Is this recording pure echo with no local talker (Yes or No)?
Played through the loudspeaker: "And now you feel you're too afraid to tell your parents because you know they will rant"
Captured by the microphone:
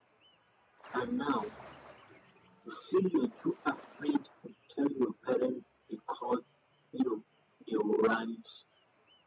Yes